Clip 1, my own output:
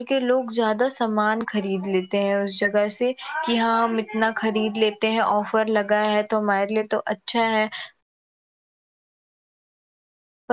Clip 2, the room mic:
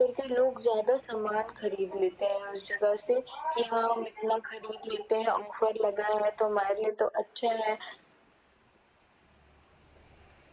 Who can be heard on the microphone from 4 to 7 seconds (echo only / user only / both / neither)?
echo only